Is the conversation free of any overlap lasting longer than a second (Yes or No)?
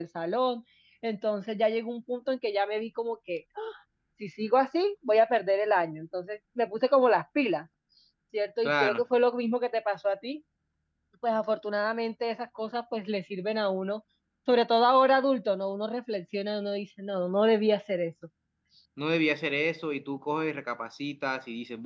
Yes